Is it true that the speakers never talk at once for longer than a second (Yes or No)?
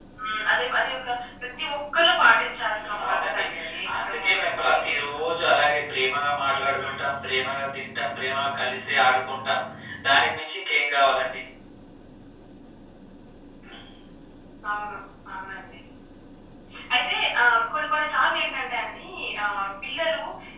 No